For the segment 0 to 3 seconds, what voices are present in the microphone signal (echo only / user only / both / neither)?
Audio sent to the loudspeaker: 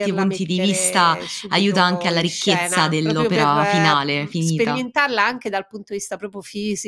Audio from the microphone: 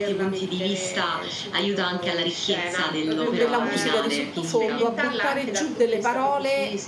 echo only